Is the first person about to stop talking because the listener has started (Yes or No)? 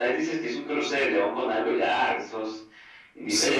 Yes